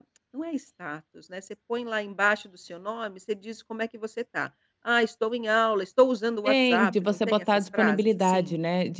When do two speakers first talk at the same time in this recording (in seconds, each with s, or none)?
6.5 s